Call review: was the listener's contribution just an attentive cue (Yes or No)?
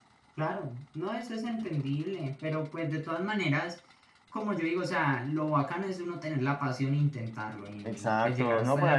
No